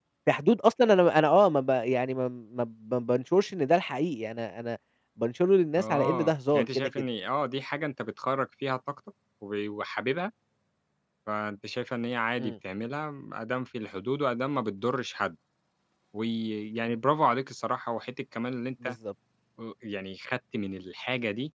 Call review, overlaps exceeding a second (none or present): present